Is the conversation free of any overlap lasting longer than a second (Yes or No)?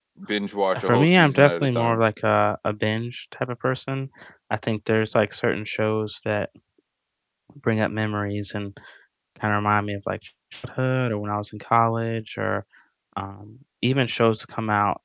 No